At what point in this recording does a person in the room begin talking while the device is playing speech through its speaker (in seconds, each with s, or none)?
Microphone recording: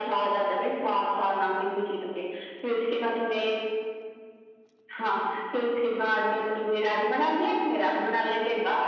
none